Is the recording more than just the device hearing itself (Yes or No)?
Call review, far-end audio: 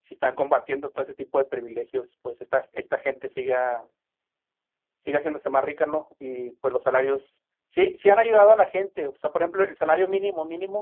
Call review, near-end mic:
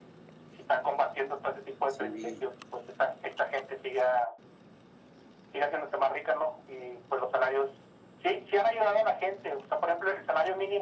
Yes